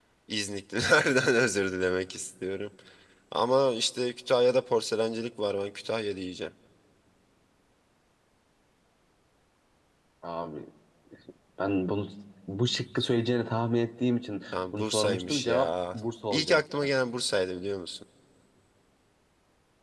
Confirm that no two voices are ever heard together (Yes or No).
No